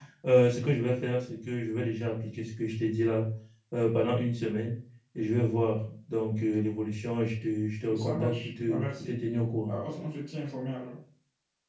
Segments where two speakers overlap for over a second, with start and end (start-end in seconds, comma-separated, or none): 7.9-9.2